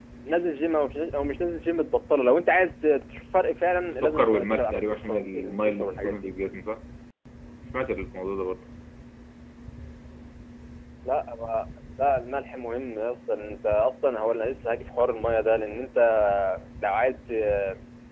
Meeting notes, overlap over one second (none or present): present